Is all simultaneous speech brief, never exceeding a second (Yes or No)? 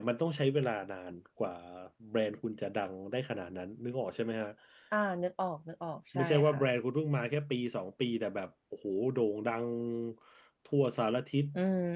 Yes